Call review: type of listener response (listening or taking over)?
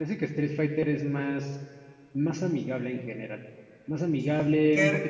taking over